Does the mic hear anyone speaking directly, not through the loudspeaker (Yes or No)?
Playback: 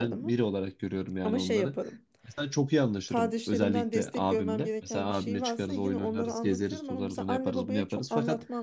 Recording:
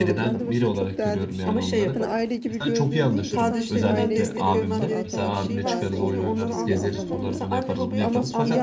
Yes